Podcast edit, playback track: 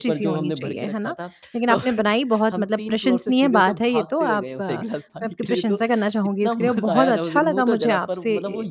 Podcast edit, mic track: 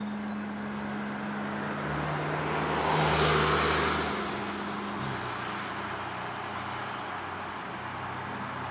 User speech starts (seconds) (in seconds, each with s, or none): none